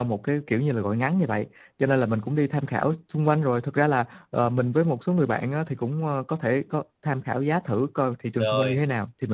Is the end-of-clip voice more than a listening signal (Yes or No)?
No